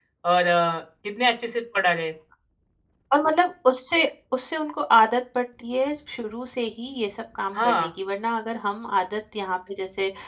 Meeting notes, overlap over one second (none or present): none